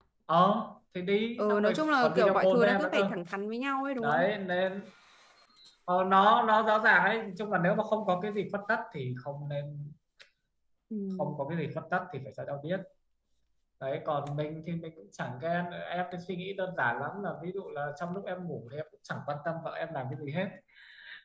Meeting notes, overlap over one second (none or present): present